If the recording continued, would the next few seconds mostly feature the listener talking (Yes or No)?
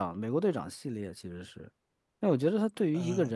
No